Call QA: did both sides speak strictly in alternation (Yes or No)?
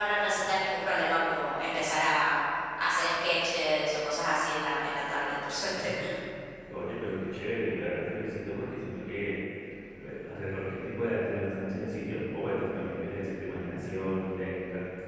Yes